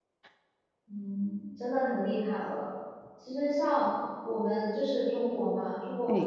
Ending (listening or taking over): listening